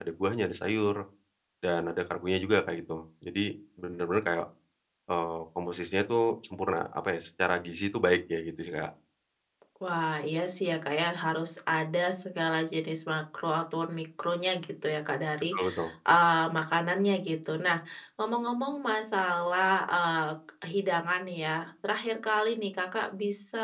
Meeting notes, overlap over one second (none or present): none